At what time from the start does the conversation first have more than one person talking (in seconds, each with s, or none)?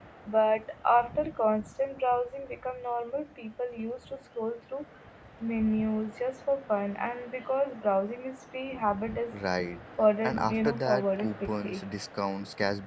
10.2 s